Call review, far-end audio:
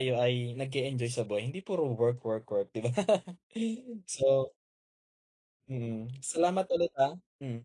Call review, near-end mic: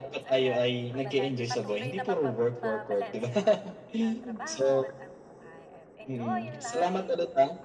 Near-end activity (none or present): present